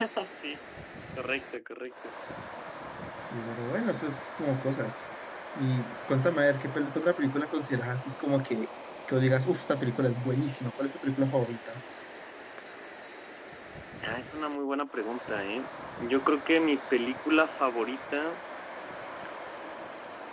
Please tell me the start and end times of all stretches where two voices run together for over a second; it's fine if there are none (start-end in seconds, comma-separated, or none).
none